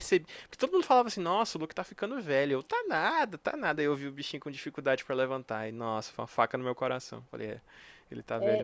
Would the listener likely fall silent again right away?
No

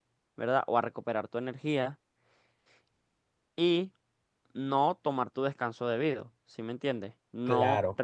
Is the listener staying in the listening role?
Yes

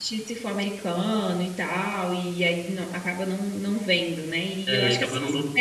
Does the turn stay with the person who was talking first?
No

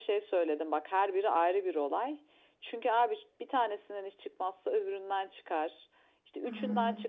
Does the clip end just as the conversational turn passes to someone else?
No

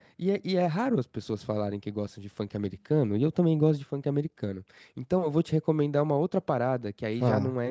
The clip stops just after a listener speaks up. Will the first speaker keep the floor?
Yes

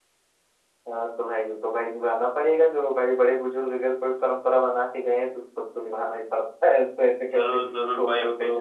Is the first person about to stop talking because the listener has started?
Yes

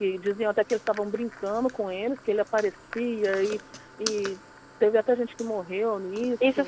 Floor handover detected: Yes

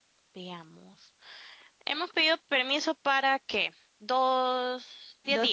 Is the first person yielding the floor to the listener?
Yes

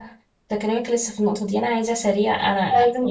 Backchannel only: Yes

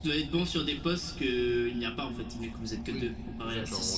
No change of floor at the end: No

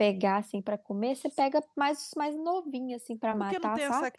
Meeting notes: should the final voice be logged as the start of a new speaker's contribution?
Yes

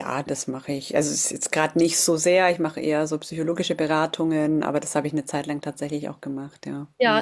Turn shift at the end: Yes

